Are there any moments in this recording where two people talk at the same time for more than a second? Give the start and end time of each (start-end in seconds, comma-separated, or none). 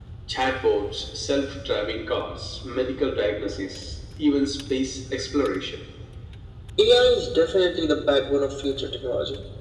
none